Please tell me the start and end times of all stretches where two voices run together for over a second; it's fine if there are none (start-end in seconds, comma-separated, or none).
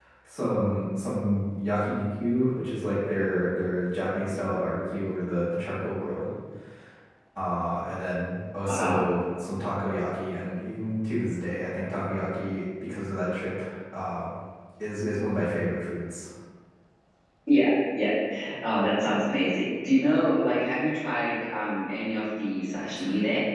none